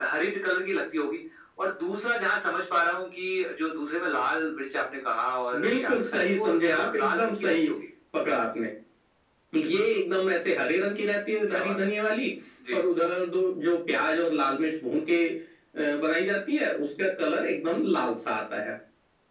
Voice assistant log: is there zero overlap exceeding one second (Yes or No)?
No